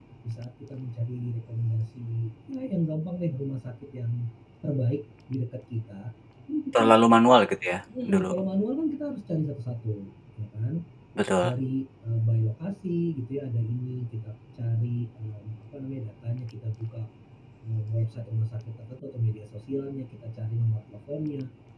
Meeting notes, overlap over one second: none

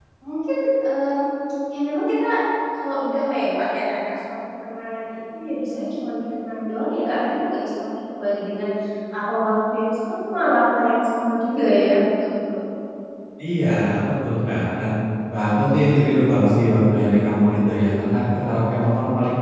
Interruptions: none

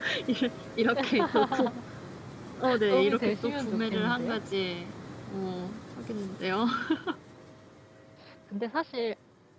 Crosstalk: present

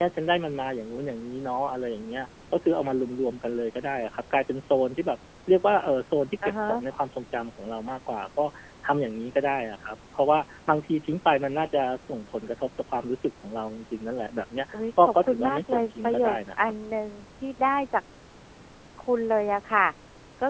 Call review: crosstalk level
present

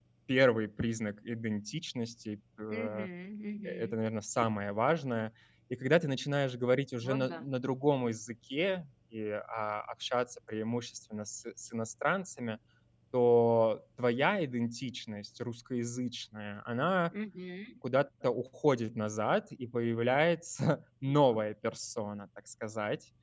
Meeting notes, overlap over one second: none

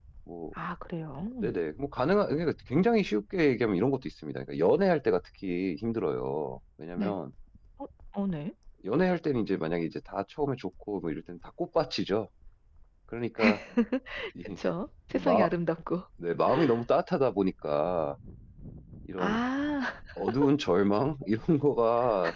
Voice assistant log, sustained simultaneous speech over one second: none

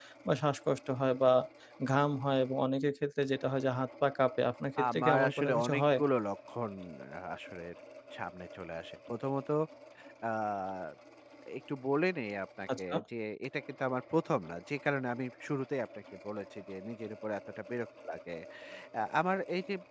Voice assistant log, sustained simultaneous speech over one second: present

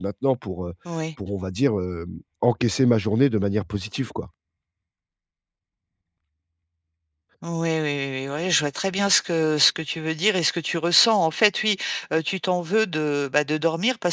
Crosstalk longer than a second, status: none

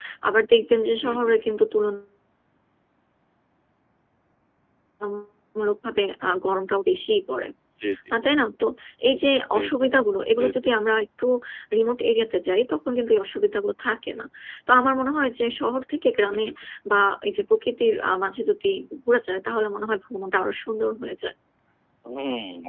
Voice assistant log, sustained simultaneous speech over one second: none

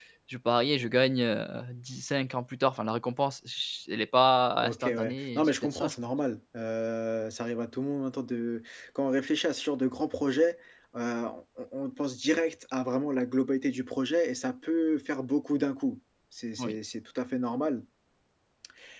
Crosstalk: present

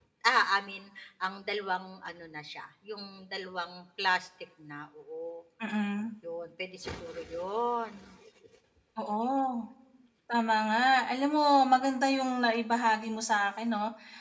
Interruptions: none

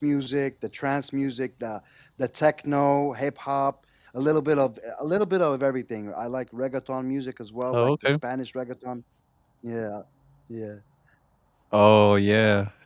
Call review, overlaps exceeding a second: none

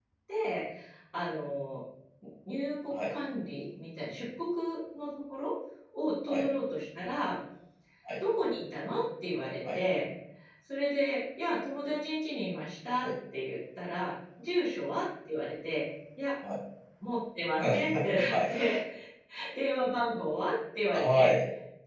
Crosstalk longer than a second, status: none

